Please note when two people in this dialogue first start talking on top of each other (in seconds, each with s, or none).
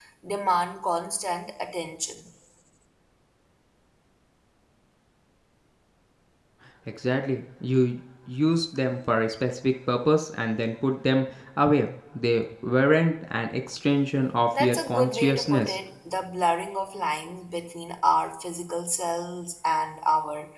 14.5 s